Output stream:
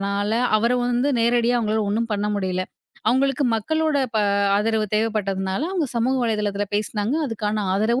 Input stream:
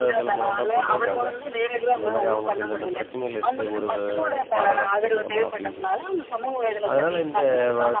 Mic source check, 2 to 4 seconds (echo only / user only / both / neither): both